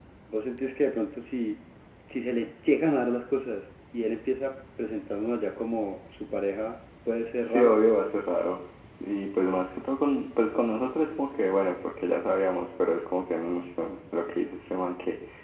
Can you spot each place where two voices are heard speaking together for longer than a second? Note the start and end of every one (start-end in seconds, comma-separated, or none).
none